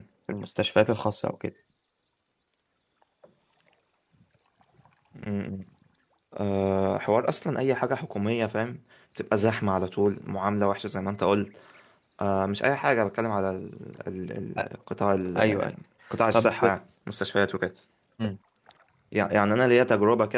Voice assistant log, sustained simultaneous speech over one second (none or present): none